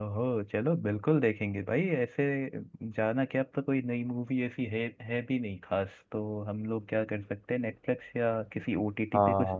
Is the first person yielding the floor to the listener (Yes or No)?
Yes